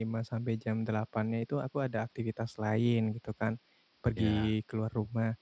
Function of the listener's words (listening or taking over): listening